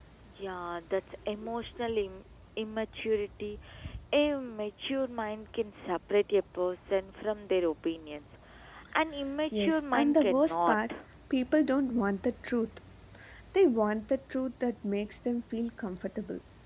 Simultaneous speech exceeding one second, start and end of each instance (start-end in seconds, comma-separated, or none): 9.5-10.8